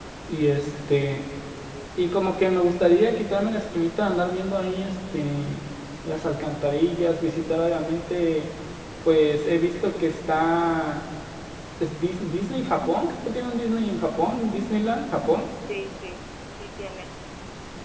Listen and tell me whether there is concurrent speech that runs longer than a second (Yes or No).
No